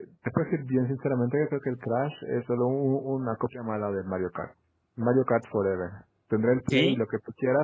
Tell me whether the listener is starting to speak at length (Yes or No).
No